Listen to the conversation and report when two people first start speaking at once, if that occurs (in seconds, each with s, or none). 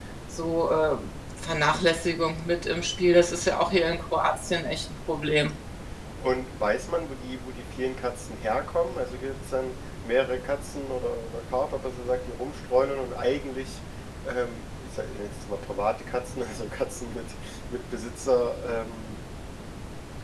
none